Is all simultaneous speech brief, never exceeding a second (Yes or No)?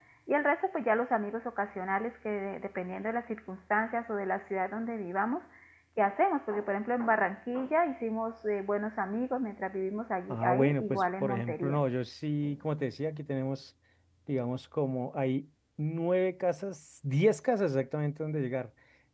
No